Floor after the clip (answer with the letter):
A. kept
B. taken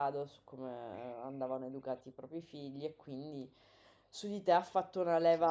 A